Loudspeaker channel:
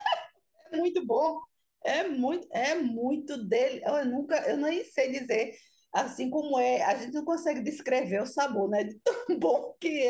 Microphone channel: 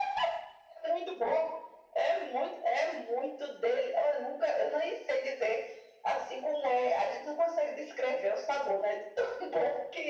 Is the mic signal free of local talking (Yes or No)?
Yes